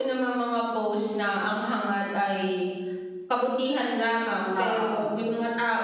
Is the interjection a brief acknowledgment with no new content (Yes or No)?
Yes